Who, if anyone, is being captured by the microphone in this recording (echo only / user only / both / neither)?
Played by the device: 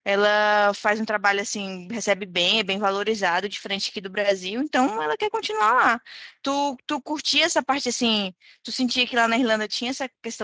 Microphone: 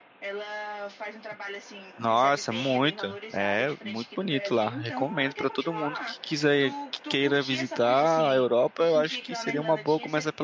both